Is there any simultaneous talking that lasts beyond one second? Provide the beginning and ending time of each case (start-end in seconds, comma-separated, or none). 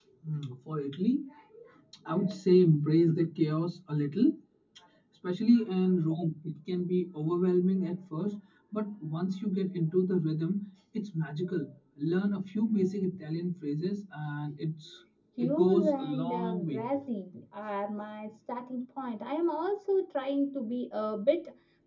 15.4-16.8